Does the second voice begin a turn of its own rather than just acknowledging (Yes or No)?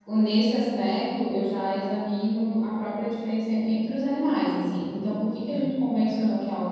No